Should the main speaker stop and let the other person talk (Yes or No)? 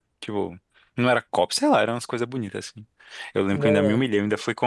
No